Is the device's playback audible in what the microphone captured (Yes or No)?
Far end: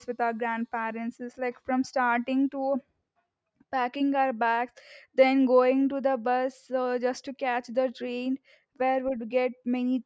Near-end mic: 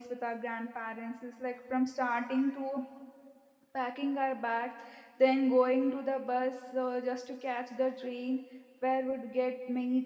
Yes